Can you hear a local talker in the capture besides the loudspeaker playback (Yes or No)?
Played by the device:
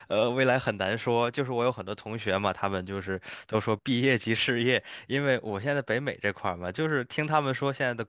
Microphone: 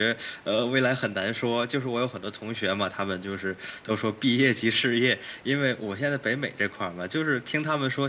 No